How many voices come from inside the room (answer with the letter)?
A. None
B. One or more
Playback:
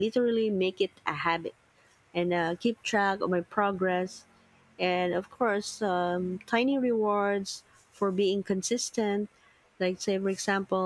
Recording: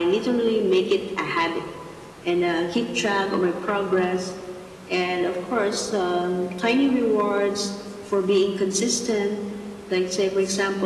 A